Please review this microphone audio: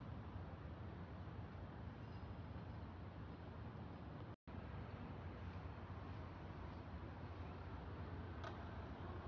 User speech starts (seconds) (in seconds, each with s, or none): none